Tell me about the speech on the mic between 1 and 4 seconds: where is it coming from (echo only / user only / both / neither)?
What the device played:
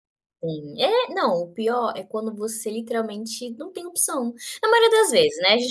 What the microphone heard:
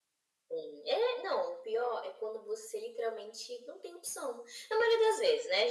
echo only